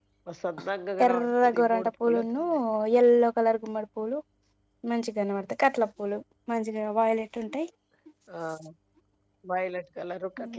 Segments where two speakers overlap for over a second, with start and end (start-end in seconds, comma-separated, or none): 1.0-2.4